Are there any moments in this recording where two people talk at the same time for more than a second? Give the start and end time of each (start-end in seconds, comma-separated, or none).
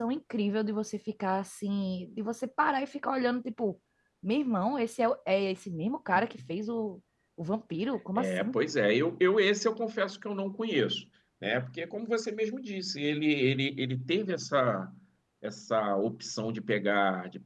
none